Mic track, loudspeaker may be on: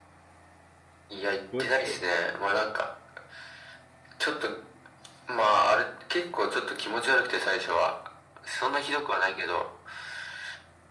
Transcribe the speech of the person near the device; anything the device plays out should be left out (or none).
こえるっしょ